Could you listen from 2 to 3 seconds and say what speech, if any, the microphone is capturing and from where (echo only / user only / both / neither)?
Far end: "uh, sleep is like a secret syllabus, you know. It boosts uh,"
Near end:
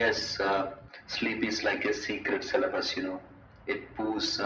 echo only